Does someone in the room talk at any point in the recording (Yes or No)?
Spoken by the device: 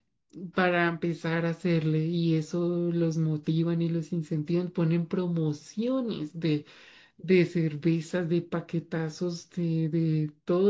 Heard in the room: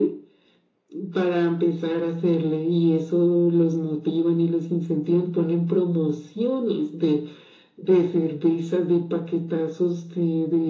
No